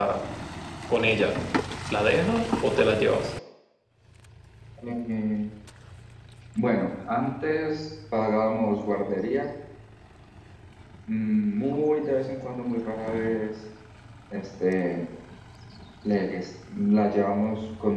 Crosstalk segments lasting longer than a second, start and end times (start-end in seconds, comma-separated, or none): none